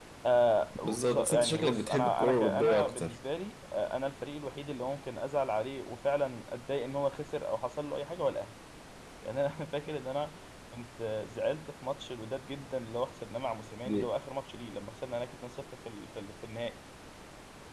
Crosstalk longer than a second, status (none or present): present